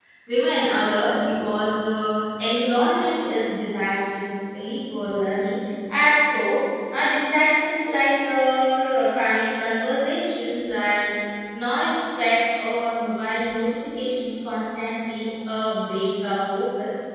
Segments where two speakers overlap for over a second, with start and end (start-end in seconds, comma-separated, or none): none